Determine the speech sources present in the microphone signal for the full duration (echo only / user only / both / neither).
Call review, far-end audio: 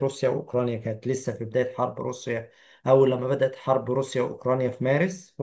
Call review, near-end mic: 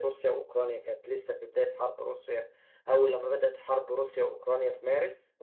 echo only